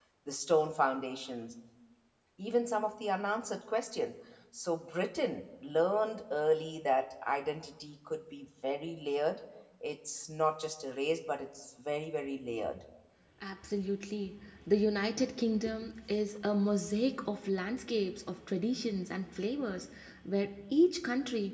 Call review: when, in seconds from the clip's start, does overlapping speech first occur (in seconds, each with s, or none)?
none